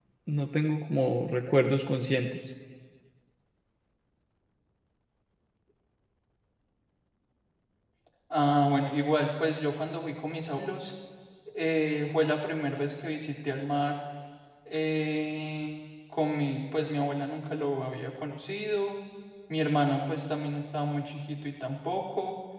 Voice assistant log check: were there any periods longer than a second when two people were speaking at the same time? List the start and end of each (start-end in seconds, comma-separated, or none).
none